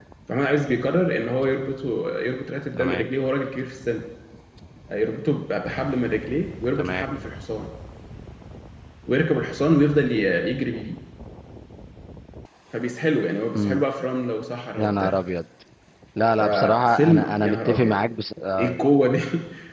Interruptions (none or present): present